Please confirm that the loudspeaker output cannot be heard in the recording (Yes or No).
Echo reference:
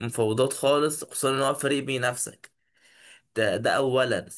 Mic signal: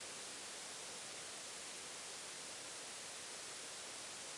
Yes